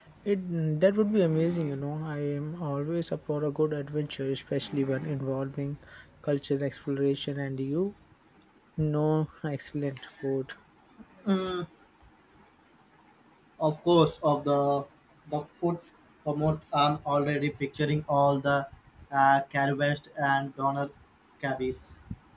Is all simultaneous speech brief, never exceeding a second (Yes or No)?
Yes